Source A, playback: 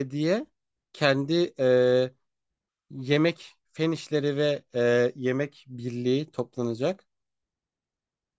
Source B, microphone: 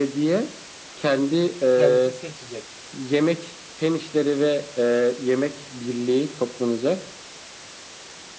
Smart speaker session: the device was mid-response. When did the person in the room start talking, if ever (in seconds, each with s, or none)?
1.7 s